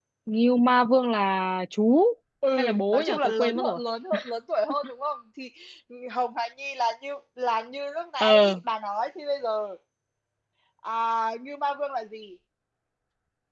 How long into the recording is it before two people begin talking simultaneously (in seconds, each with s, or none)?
2.6 s